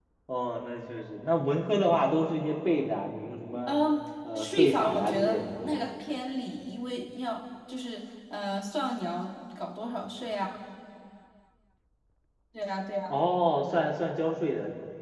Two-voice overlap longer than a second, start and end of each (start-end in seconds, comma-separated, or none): 4.3-5.8